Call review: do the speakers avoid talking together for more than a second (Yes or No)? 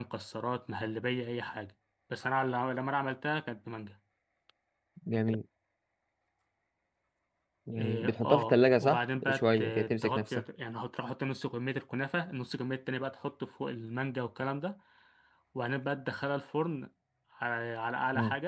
No